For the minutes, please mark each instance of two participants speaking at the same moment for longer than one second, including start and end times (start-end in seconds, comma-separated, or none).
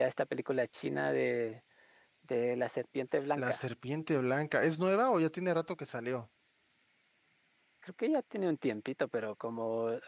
none